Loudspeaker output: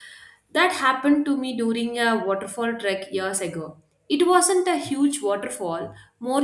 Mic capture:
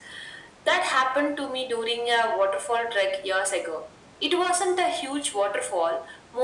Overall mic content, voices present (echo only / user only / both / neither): echo only